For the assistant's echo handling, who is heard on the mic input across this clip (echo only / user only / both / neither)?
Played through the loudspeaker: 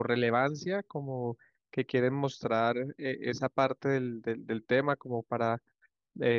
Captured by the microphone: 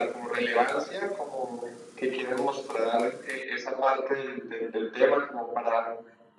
echo only